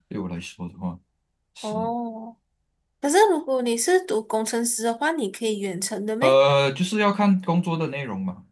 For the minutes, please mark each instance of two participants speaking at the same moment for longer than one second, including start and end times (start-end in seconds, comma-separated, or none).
none